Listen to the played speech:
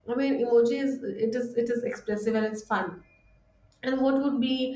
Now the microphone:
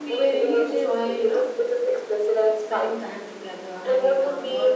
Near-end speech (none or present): present